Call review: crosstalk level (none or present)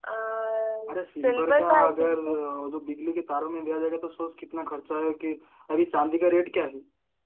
present